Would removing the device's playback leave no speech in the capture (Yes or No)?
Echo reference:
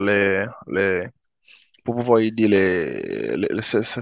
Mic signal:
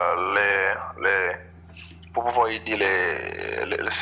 Yes